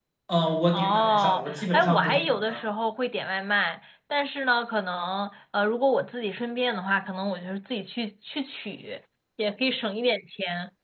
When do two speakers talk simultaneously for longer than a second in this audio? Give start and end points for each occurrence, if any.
0.7-2.6

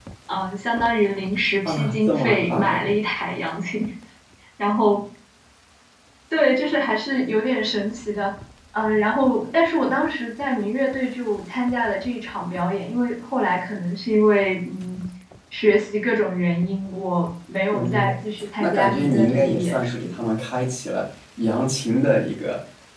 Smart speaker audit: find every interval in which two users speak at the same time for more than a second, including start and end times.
1.6-2.9, 18.6-20.1

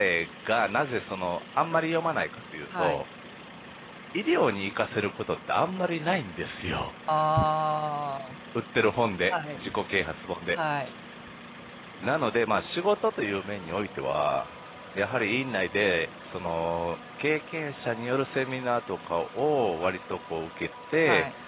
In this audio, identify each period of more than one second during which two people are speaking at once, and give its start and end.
none

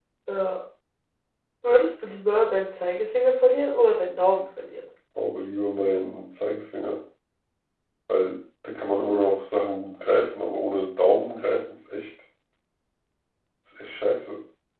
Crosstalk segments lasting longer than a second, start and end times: none

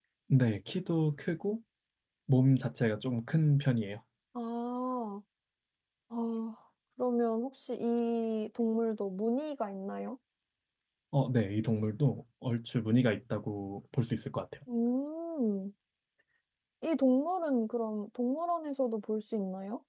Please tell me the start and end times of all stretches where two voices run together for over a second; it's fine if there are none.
none

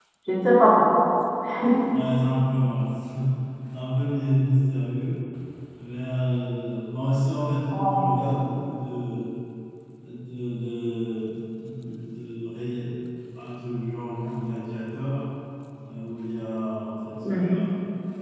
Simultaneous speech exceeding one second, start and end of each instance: none

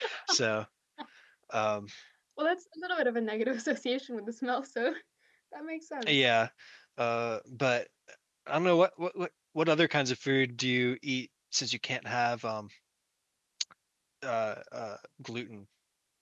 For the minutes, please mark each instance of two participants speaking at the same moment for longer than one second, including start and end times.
none

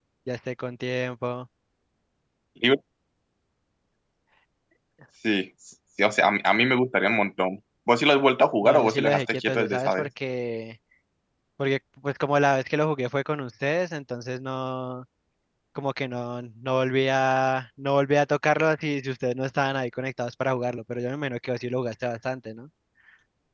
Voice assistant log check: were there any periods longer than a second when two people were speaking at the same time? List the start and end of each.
8.6-10.1

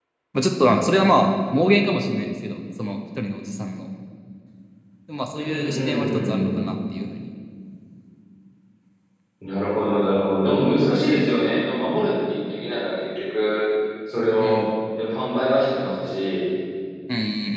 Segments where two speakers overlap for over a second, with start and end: 5.3-6.6

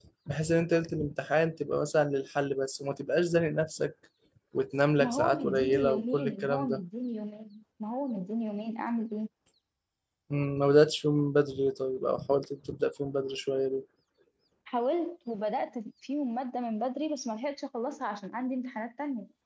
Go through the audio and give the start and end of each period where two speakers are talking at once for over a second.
5.0-6.8

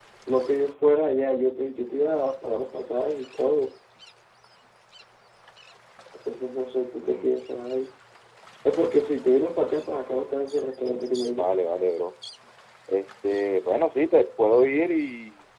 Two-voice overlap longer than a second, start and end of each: none

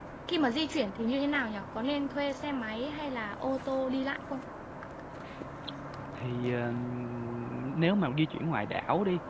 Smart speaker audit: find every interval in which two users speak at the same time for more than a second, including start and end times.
none

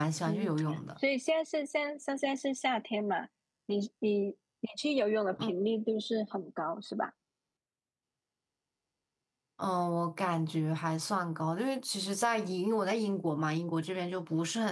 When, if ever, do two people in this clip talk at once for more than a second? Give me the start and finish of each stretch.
none

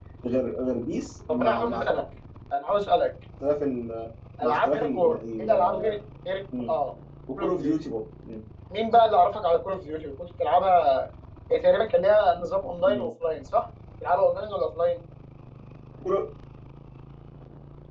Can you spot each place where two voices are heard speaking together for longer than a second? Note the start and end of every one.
4.4-5.8

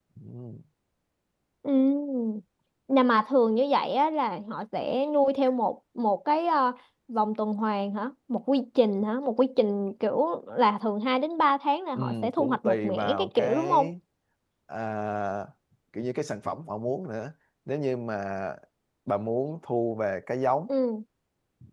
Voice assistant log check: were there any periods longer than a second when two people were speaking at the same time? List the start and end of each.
12.0-13.9

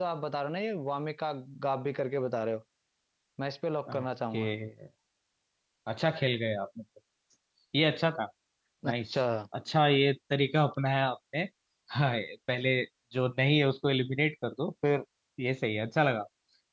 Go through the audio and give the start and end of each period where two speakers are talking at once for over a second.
none

